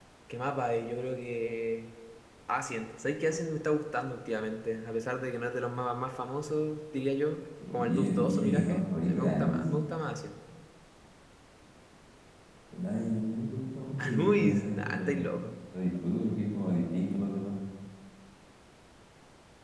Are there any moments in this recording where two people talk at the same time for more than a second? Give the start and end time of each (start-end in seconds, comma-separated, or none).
7.7-9.6, 14.0-15.3